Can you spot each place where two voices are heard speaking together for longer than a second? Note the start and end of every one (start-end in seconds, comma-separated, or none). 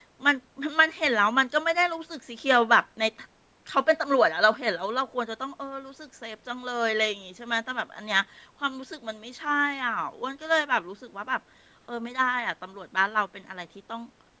none